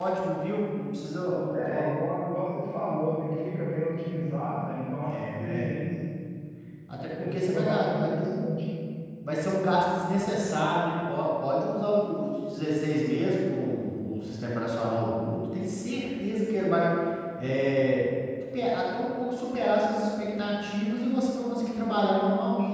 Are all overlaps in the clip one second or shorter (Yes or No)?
No